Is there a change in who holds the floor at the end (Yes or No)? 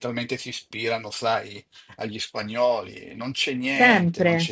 Yes